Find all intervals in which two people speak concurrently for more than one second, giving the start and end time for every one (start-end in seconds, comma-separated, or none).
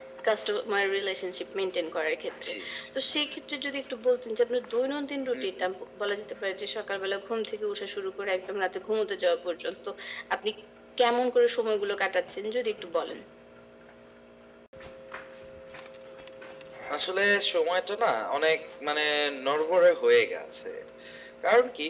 none